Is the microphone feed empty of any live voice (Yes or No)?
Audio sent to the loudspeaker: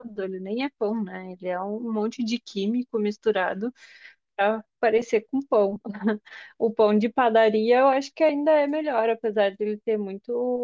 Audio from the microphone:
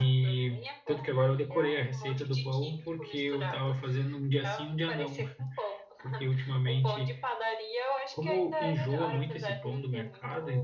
No